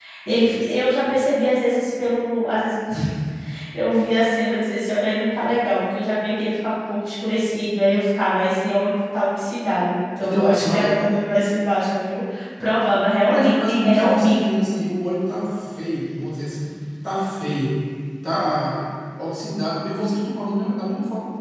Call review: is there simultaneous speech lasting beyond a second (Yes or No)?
Yes